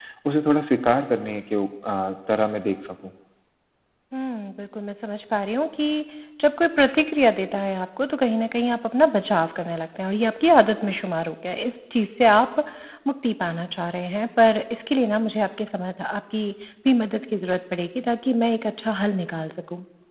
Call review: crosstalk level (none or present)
none